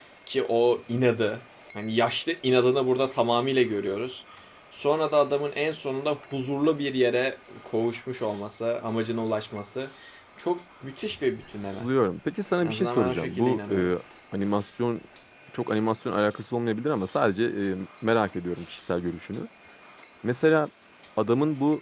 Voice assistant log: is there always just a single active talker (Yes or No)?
No